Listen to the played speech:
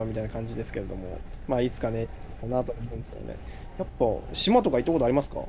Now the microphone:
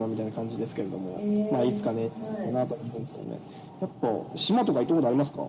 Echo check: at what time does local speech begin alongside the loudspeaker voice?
1 s

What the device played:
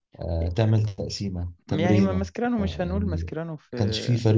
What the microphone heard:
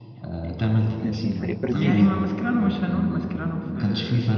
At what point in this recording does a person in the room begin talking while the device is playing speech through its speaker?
1 s

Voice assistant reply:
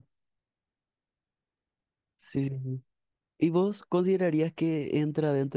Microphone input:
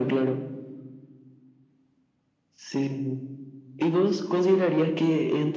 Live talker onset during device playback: none

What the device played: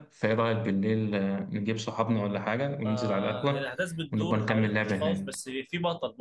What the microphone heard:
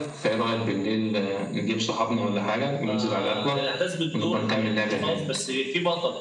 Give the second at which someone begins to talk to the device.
none

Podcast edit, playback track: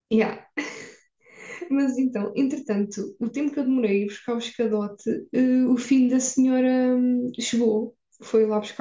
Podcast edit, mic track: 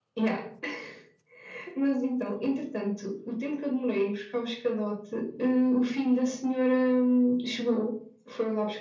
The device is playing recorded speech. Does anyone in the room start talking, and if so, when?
none

